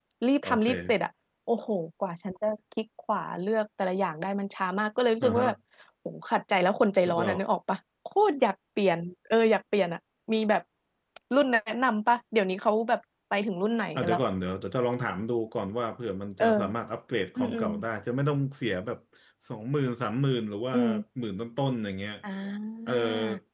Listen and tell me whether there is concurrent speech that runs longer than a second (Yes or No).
No